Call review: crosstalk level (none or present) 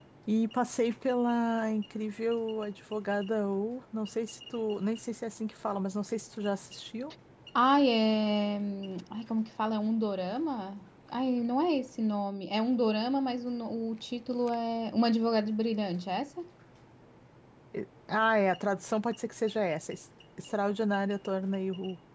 none